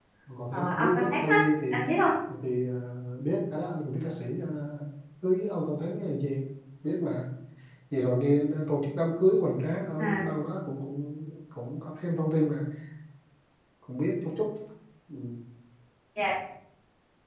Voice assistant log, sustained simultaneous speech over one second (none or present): present